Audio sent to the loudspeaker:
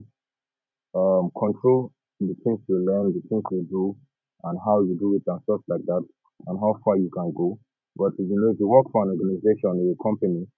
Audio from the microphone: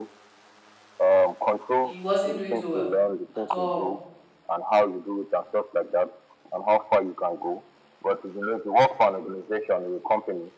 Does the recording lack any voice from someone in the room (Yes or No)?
No